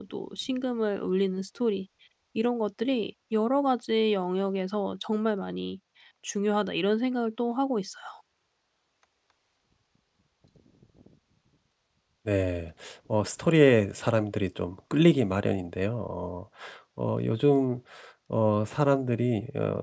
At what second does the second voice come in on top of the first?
none

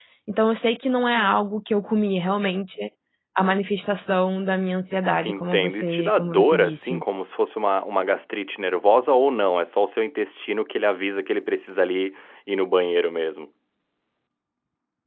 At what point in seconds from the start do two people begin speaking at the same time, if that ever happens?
5 s

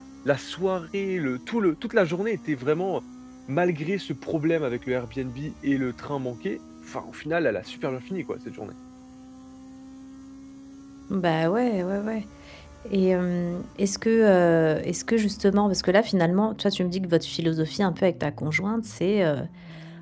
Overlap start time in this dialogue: none

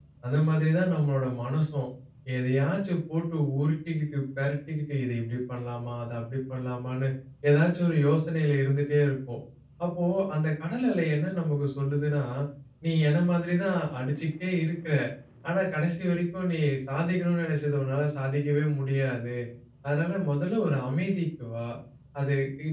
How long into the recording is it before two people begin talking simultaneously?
none

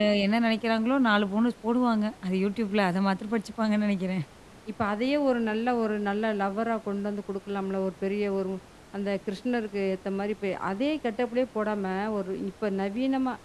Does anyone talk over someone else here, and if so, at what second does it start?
none

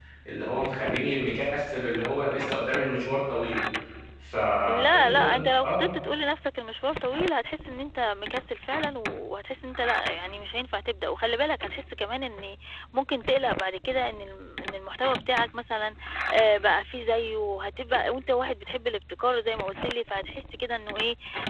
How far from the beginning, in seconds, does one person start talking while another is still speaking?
5 s

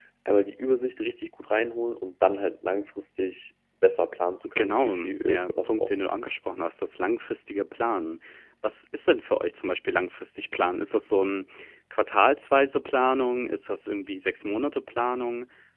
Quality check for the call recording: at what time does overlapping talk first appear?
4 s

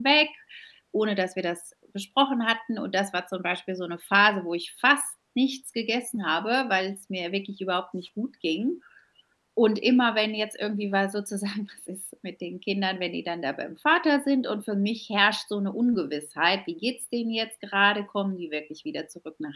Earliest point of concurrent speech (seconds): none

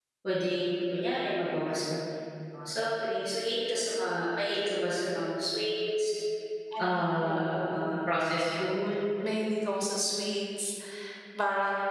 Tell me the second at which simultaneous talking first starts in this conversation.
7 s

